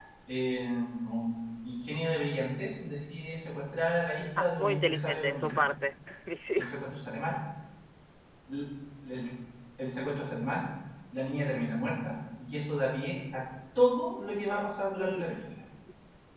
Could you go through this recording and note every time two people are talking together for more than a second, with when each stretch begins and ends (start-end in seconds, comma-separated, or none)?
4.4-5.6